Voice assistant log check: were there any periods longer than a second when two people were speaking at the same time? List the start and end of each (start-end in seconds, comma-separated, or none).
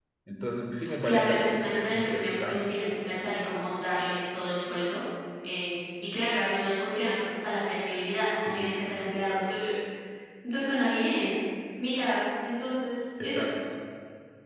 1.0-2.6